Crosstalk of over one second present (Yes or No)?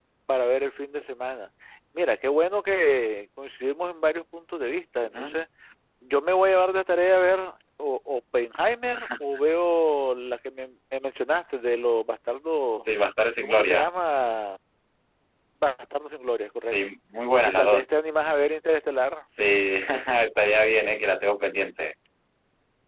No